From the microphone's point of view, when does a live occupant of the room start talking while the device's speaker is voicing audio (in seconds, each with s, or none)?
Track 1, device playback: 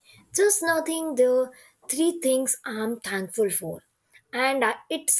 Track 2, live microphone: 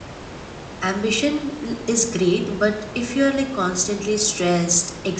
0.8 s